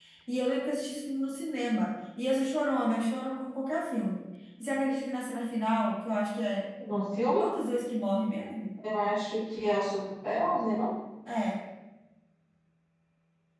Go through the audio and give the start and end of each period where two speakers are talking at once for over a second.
none

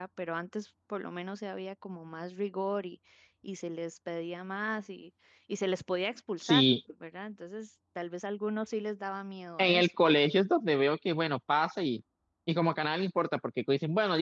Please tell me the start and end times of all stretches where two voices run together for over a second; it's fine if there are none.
none

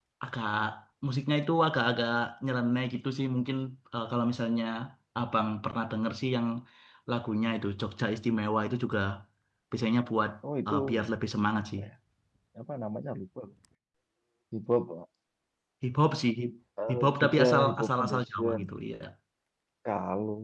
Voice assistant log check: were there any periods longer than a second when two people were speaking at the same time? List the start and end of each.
16.9-18.7

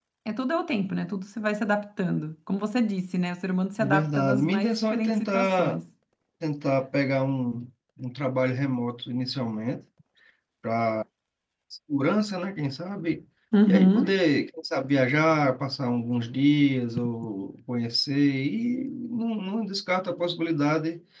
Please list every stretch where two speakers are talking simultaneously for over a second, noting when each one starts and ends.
3.8-5.8

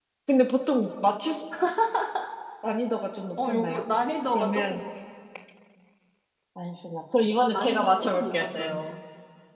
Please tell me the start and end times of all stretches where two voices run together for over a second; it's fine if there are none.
7.5-8.8

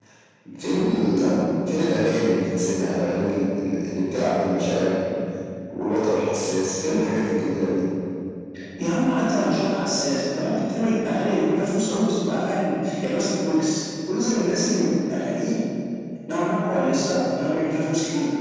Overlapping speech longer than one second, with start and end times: none

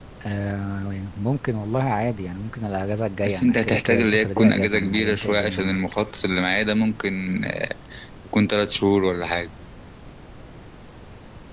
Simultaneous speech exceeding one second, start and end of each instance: 3.2-5.8

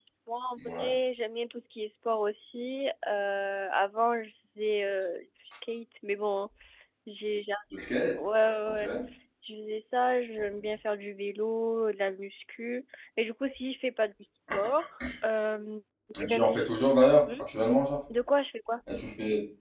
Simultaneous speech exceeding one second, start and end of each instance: none

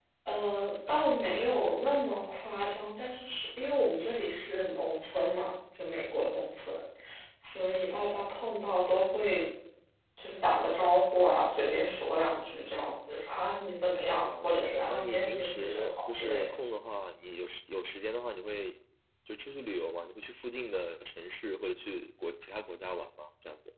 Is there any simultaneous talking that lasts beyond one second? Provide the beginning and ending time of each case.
14.2-16.4

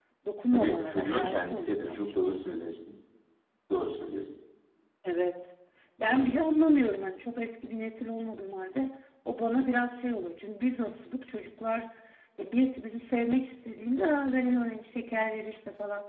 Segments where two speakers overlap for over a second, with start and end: 0.5-2.1

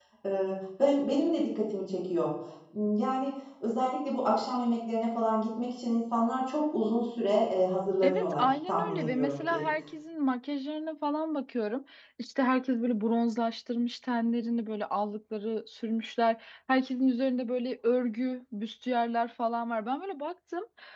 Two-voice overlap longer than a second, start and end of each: 8.0-9.6

